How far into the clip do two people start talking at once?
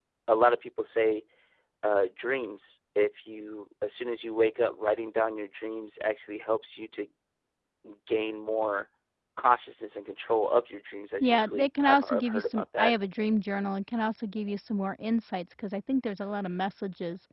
11.2 s

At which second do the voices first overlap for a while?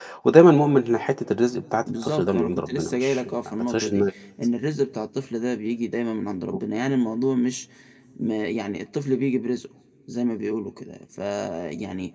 1.9 s

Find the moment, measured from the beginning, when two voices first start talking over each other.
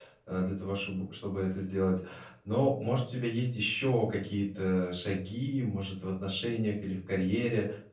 none

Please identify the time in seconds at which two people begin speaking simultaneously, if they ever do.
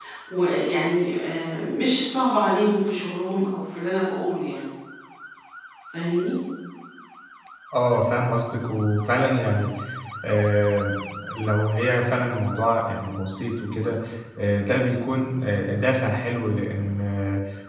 none

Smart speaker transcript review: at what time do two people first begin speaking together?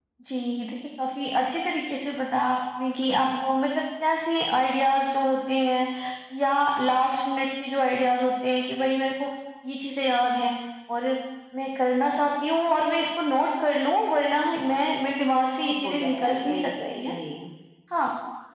15.3 s

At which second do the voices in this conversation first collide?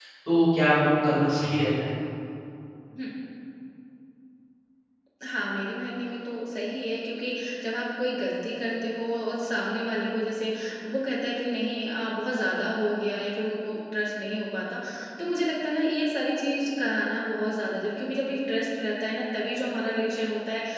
none

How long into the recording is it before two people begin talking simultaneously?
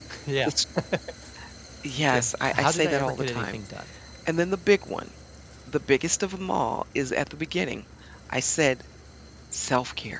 2.1 s

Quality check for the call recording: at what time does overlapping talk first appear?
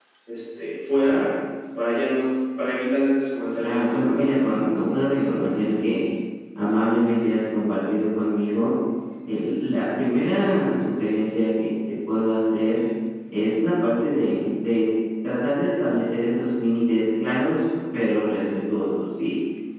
3.6 s

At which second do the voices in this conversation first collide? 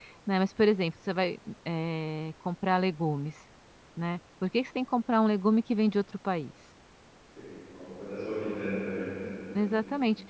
none

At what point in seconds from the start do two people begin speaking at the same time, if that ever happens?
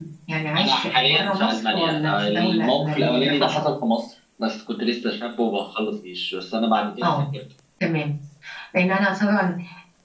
0.6 s

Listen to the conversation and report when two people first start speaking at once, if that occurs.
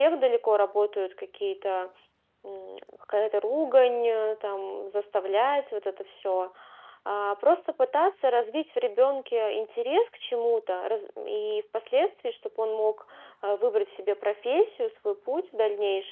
none

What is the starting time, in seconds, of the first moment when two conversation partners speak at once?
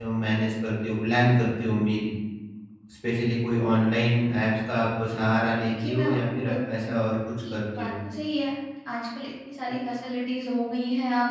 5.7 s

